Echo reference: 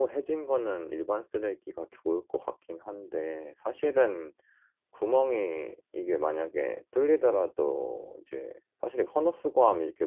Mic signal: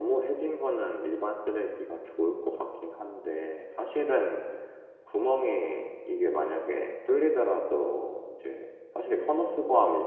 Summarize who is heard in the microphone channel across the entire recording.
echo only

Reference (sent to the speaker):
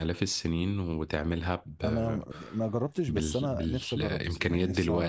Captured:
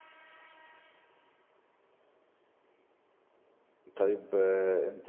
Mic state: user only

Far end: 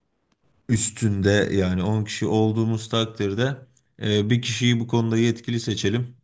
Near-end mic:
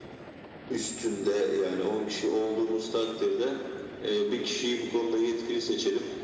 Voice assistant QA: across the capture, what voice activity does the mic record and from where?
echo only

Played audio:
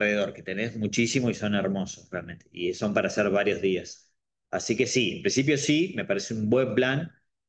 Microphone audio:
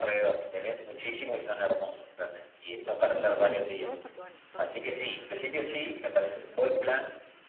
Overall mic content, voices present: both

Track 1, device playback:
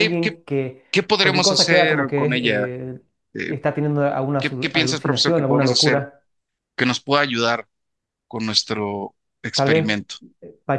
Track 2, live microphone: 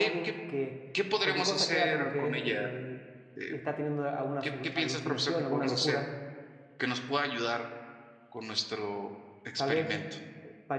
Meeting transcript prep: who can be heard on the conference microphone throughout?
echo only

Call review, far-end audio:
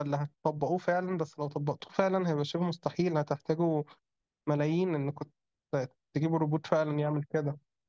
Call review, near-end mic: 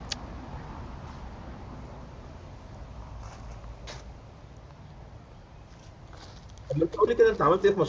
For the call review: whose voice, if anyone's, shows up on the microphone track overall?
user only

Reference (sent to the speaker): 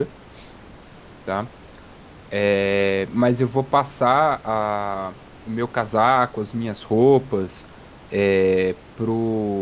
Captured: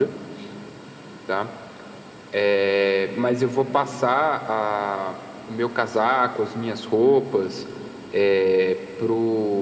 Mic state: echo only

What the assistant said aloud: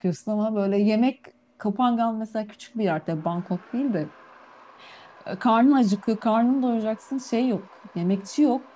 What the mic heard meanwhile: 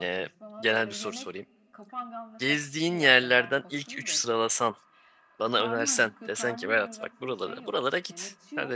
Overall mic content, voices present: both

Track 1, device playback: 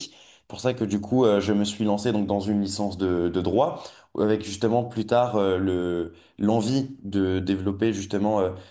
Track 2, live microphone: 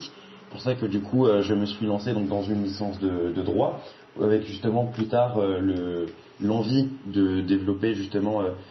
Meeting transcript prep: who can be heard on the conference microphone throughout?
echo only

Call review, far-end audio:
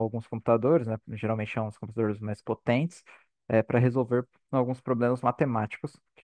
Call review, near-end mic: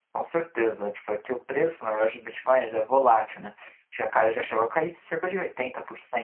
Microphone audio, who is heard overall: user only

